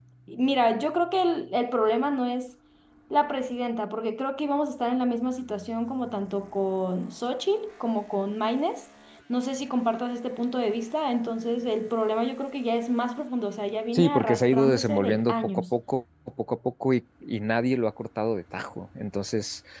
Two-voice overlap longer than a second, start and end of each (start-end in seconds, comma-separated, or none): 13.9-15.6